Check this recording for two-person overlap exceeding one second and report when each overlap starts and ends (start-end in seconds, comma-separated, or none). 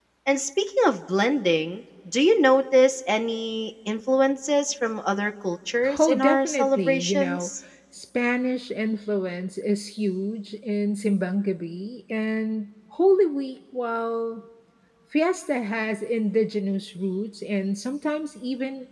6.0-7.5